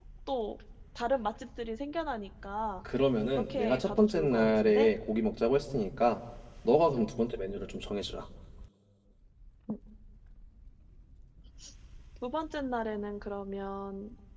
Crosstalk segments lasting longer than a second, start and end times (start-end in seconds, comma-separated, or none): 3.4-4.9